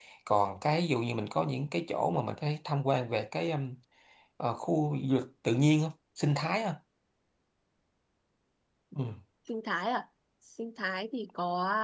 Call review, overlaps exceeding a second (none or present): none